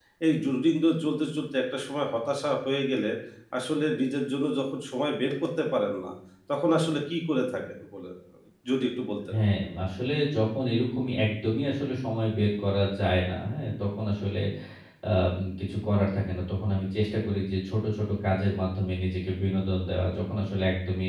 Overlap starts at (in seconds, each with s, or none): none